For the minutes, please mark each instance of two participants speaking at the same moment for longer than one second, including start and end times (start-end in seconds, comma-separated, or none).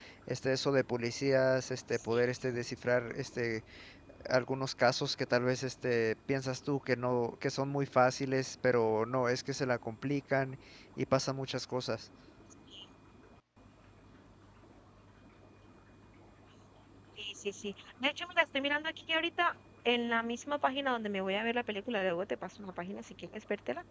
none